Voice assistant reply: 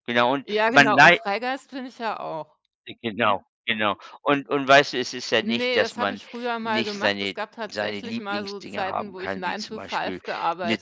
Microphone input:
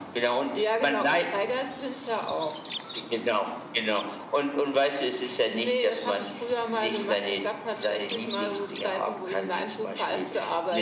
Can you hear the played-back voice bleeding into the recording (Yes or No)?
Yes